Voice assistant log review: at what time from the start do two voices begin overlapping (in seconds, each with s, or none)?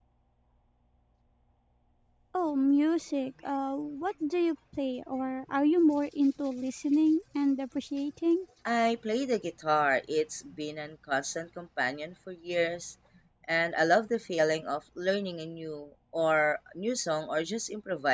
none